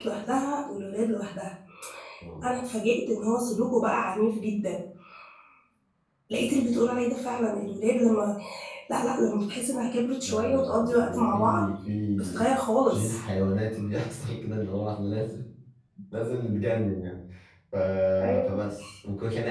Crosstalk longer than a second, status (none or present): present